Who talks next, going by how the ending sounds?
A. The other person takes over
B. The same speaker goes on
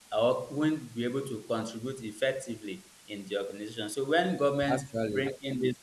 B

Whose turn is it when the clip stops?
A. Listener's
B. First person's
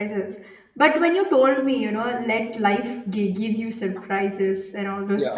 B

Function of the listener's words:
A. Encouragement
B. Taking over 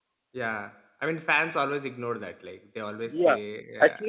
B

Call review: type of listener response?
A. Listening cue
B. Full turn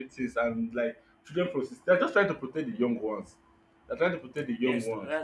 B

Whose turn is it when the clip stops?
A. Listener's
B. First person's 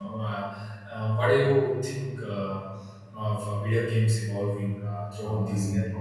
A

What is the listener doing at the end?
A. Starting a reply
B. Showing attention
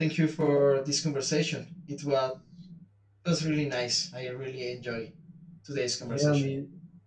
A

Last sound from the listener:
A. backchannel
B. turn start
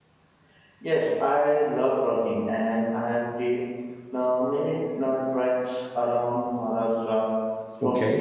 A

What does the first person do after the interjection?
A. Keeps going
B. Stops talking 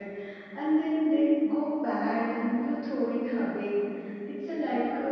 A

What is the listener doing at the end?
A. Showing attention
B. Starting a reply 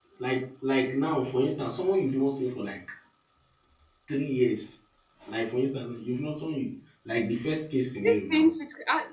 B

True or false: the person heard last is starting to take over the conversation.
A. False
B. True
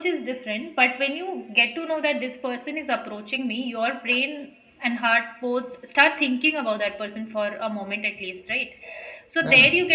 A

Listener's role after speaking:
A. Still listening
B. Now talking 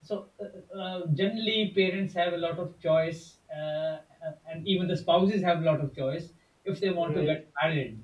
A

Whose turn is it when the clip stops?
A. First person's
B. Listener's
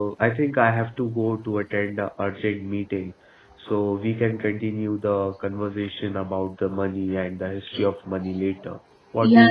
B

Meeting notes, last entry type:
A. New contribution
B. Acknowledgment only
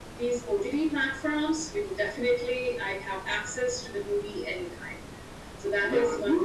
A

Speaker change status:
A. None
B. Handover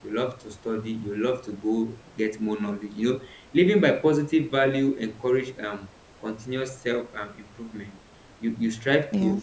A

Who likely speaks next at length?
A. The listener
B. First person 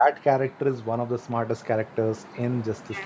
A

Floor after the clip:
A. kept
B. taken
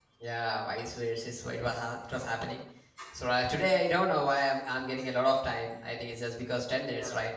B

